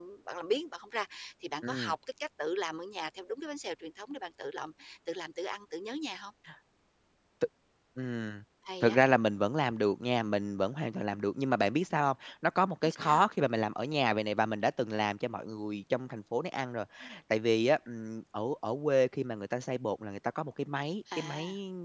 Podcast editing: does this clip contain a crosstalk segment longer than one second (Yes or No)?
No